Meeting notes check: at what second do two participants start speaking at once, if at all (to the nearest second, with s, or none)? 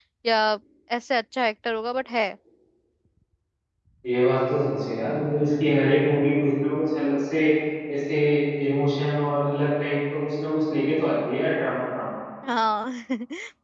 none